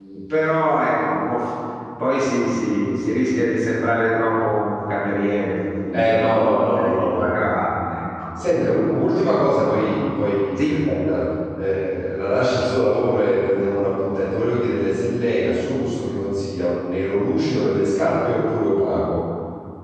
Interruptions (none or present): present